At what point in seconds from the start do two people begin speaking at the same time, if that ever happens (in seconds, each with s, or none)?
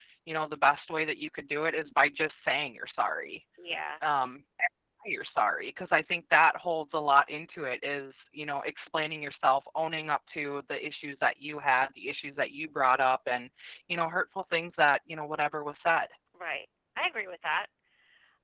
none